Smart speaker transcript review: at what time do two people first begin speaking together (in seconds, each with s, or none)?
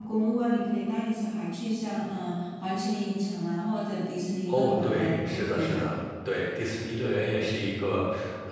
4.5 s